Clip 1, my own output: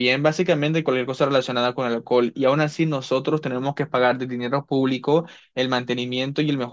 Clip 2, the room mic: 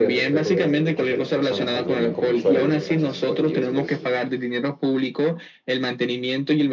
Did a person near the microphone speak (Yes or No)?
Yes